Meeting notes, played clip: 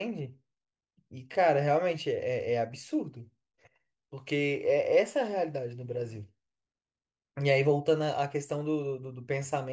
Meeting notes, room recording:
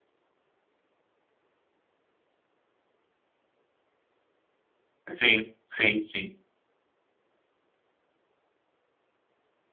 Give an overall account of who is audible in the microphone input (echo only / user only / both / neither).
user only